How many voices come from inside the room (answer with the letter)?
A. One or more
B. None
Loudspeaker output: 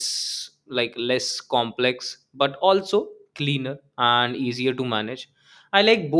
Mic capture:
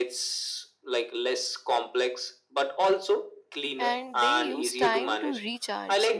A